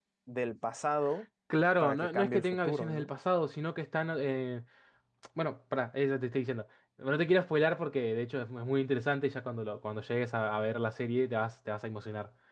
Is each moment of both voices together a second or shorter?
No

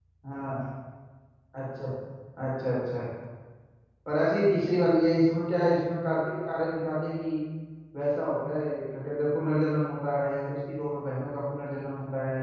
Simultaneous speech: No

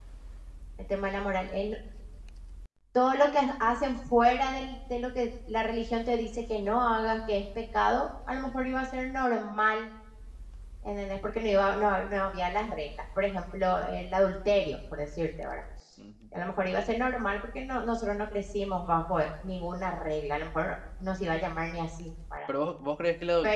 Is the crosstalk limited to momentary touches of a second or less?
Yes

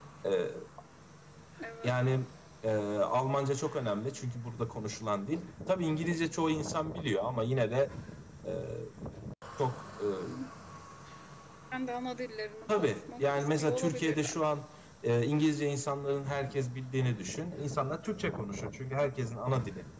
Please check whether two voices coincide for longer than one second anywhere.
Yes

